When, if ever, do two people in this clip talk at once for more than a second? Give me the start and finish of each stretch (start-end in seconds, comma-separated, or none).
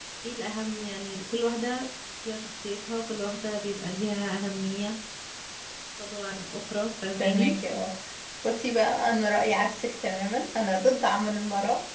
none